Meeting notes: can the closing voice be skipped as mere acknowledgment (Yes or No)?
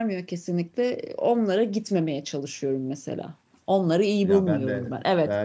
No